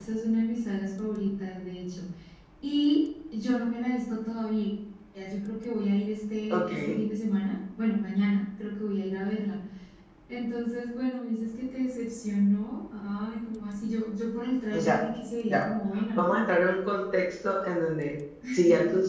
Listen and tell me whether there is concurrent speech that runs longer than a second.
No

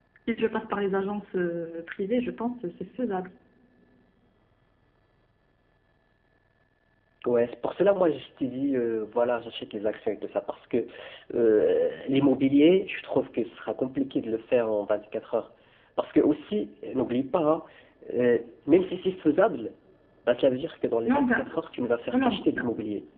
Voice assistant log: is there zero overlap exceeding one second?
Yes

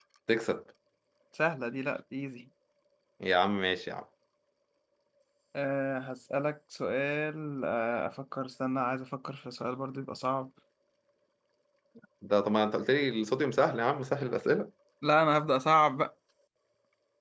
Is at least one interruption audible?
No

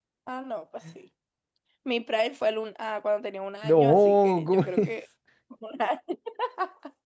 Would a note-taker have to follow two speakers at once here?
Yes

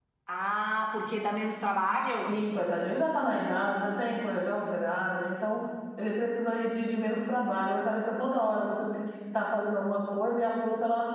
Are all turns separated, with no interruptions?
Yes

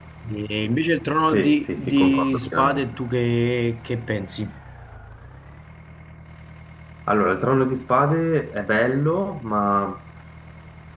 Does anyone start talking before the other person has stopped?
Yes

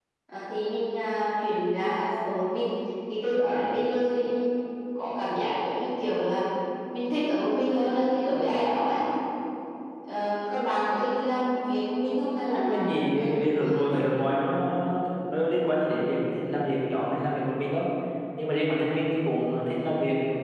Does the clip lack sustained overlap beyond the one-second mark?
No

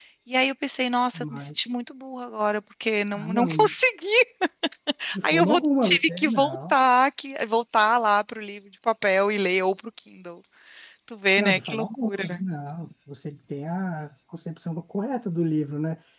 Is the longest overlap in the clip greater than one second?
Yes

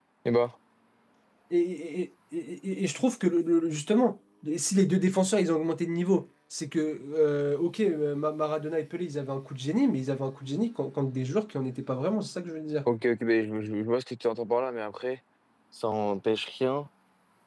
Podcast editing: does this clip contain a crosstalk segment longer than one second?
No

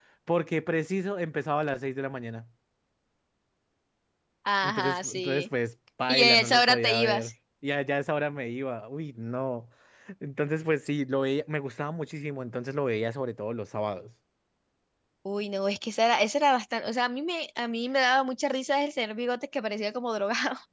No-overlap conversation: No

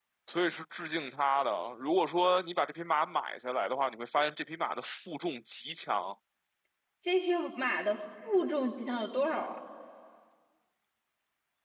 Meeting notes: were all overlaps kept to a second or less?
Yes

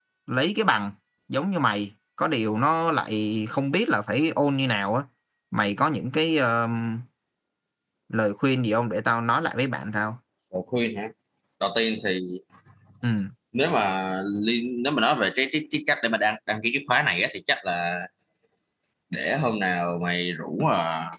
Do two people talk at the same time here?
No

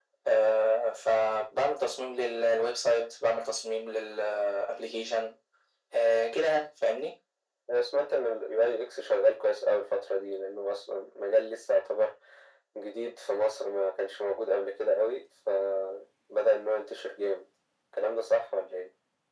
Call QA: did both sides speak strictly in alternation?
Yes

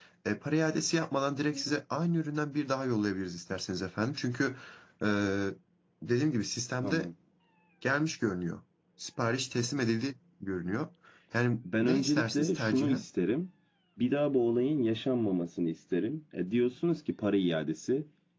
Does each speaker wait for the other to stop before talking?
No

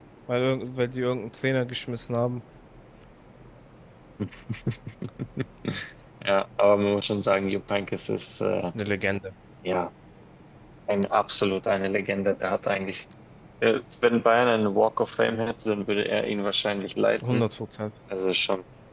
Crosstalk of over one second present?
No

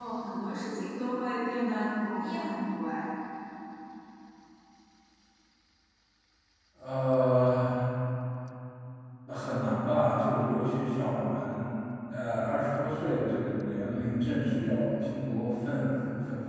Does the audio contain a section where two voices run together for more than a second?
No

